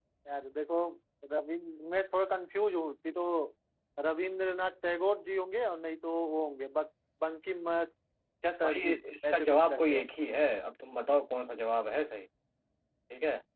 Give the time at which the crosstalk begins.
8.6 s

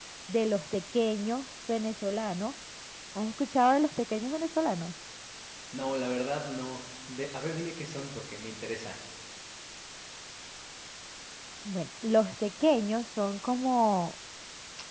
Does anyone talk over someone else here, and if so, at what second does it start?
none

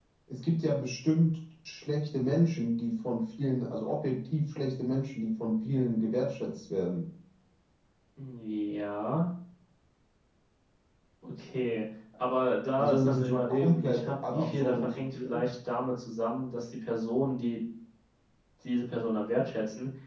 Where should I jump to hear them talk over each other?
12.8 s

